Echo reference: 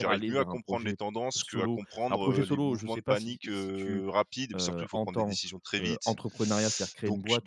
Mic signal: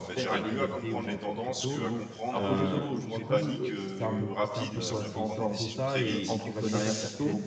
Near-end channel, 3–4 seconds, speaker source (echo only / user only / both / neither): both